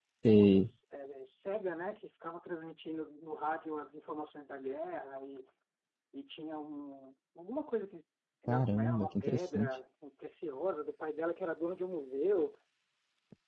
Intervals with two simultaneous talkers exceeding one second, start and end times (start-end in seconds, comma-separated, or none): 8.5-9.7